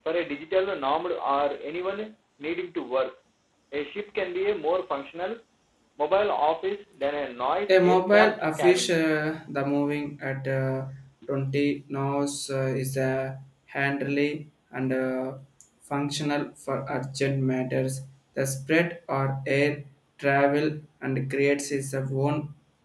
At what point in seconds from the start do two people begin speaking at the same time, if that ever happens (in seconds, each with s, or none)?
7.7 s